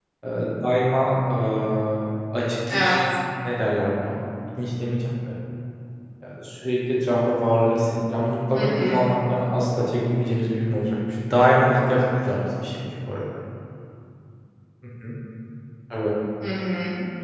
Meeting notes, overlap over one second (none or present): none